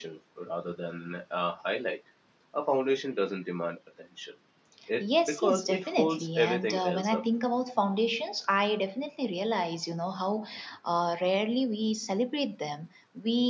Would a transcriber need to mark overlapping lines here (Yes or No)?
Yes